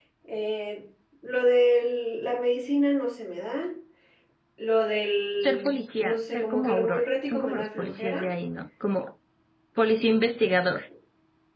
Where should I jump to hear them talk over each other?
5.4 s

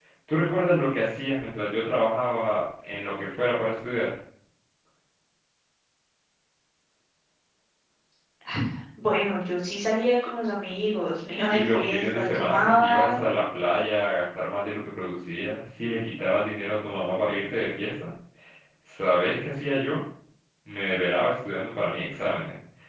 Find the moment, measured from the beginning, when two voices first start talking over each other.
11.5 s

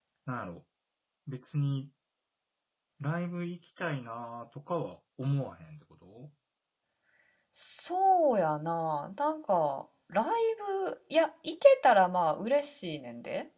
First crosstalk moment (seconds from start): none

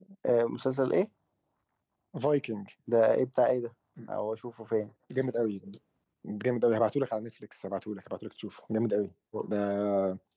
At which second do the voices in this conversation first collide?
none

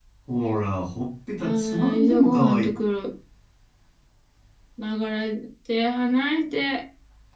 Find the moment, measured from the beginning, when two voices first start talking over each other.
1.4 s

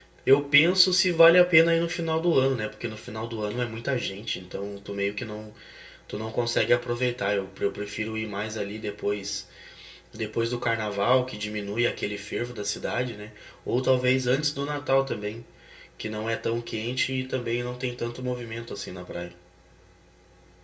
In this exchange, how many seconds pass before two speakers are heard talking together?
none

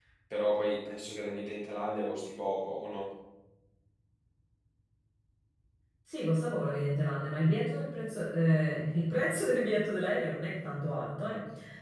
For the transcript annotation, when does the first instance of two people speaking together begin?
none

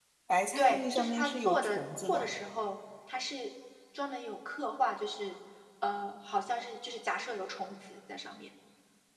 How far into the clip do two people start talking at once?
0.6 s

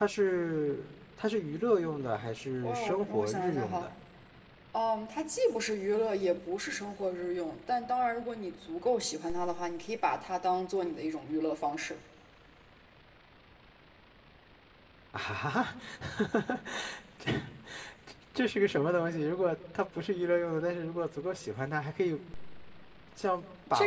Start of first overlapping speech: 2.6 s

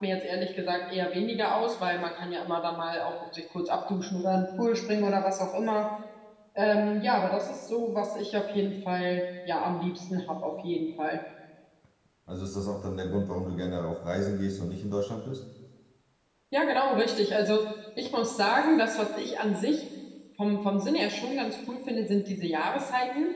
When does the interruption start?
none

